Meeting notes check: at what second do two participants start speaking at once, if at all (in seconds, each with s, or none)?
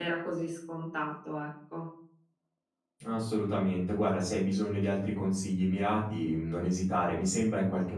none